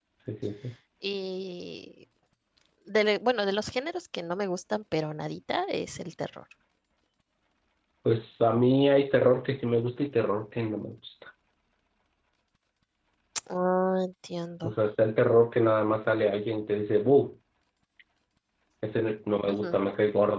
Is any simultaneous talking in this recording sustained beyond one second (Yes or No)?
No